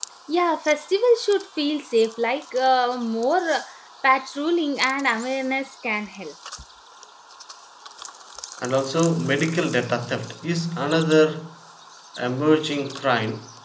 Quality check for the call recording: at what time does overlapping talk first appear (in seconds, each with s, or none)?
none